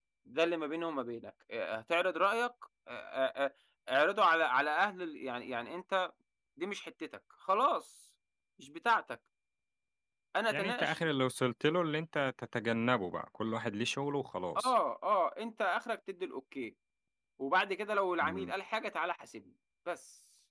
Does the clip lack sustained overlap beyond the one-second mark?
Yes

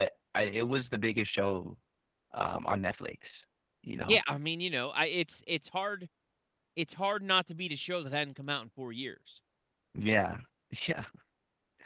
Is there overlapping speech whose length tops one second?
No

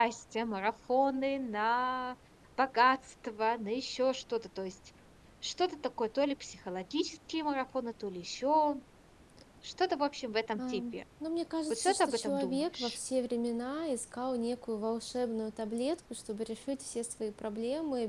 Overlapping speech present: Yes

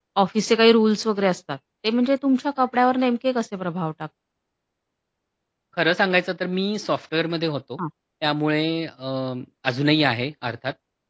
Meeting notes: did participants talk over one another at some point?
No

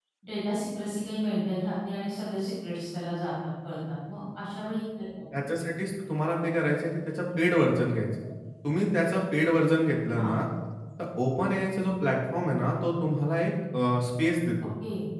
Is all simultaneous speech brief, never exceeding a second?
Yes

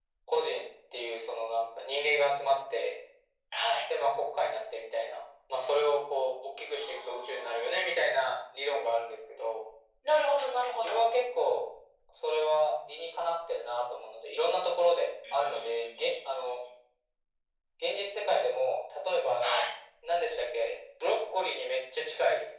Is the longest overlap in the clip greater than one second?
Yes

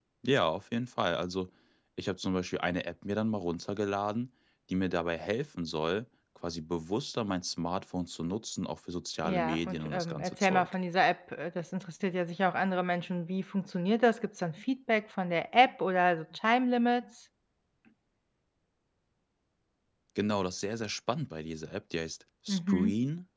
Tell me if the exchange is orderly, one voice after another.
No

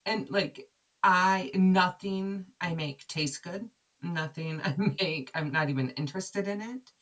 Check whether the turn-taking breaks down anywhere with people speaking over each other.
No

